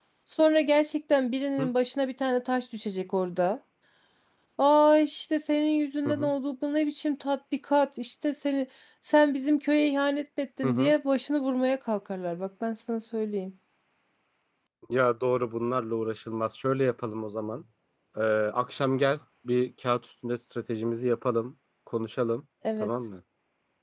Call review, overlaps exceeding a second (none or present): none